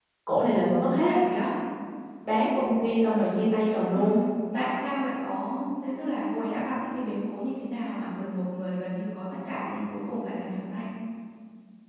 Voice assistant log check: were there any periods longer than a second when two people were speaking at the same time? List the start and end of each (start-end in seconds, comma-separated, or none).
none